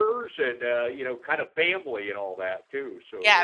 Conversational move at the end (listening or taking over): taking over